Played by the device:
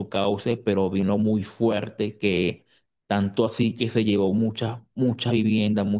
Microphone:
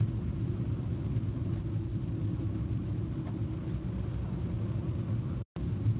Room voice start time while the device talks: none

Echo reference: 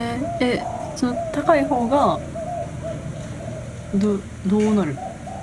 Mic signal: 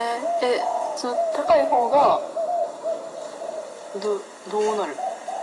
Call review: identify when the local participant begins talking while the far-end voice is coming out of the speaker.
none

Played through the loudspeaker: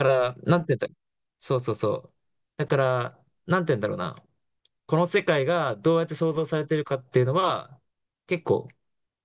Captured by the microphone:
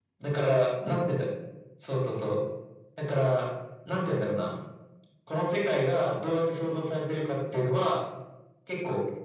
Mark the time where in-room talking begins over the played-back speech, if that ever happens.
none

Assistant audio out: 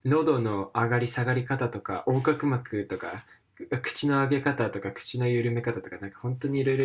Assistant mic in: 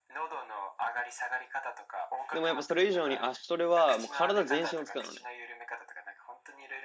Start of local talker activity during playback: 2.3 s

